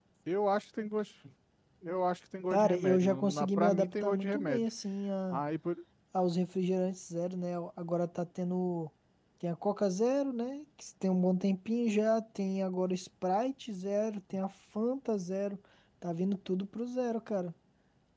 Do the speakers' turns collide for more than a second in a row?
Yes, from 2.5 s

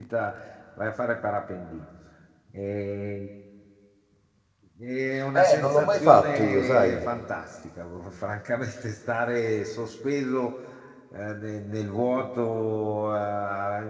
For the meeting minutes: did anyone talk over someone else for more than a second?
Yes, from 5.4 s

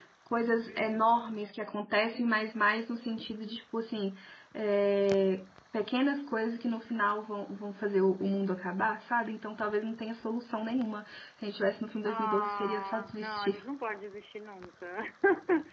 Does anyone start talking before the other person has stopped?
Yes, from 12.0 s

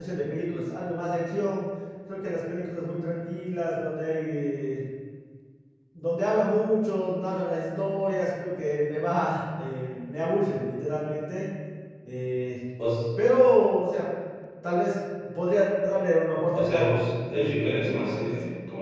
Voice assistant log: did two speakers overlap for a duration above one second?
Yes, from 16.5 s

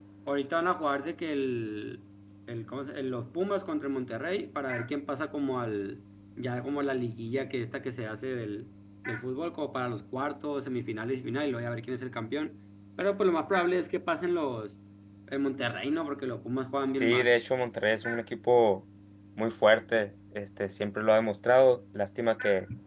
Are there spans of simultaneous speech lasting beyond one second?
No

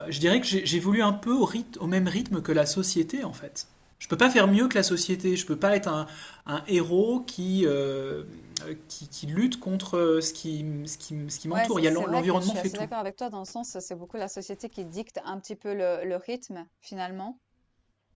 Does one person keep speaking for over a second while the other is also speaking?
Yes, from 11.5 s

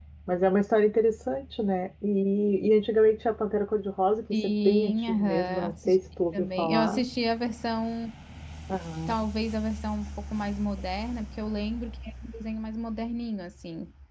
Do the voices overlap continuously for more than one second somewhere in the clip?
Yes, from 4.3 s

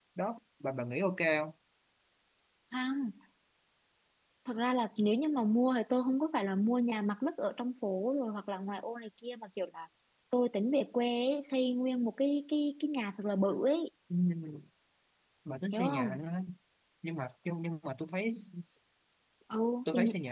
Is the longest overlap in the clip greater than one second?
No

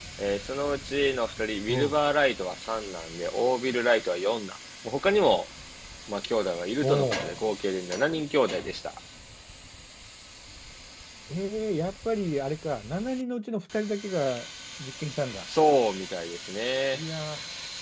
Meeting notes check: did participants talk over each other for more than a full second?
No

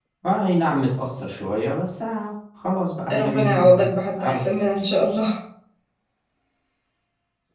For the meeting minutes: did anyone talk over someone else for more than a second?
Yes, from 3.1 s

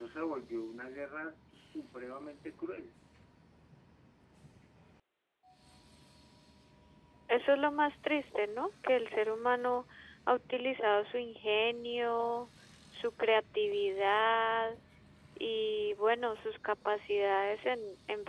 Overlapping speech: No

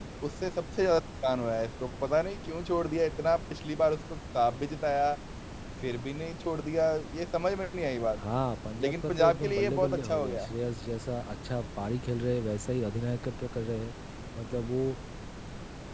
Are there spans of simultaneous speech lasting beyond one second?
Yes, from 8.8 s

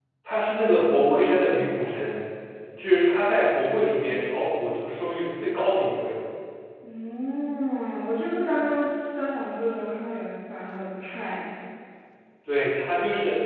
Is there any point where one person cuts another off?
No

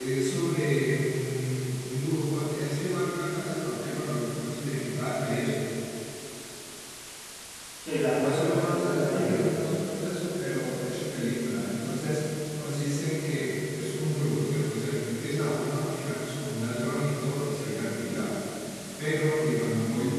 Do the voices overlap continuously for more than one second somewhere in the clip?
Yes, from 8.2 s

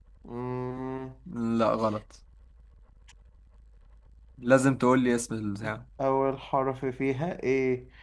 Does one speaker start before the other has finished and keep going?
No

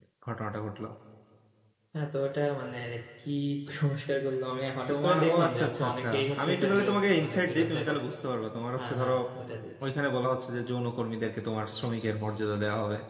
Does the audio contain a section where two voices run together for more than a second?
Yes, from 4.9 s

